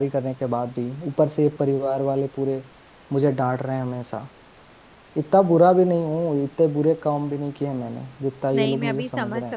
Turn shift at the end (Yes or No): Yes